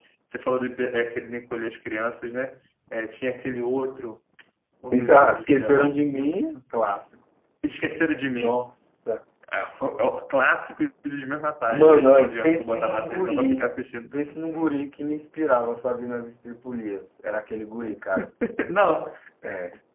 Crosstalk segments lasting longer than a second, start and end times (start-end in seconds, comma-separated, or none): 4.9-6.6, 11.7-13.7